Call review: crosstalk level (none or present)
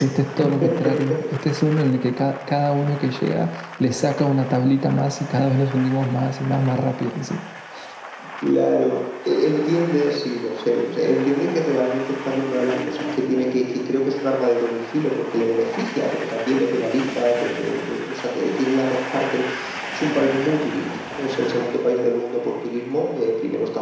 none